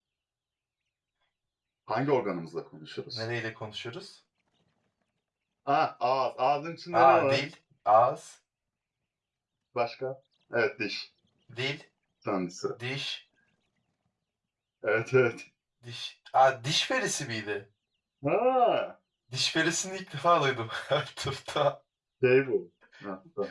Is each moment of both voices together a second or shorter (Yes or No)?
Yes